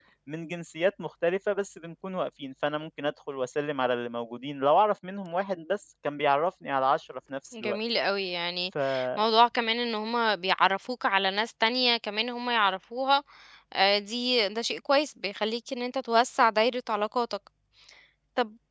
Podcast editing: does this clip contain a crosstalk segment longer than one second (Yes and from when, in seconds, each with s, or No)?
No